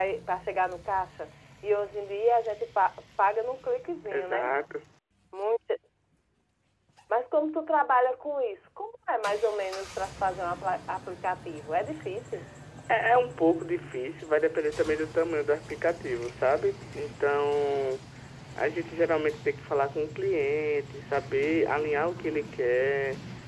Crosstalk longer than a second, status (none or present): none